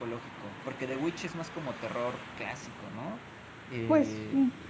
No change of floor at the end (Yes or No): No